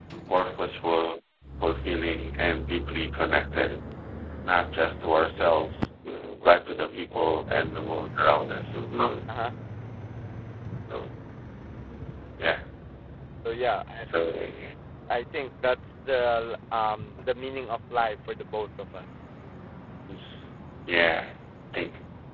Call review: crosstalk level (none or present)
none